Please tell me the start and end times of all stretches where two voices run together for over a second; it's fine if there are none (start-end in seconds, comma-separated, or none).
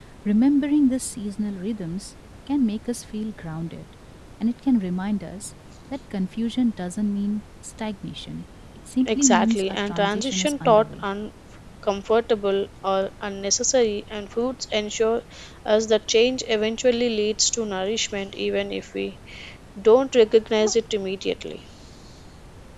9.0-11.0